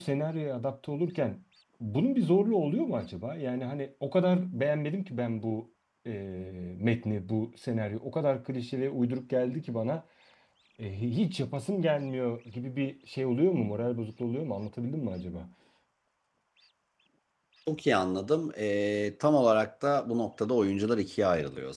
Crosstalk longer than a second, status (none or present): none